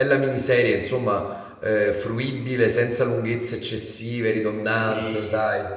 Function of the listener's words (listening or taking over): taking over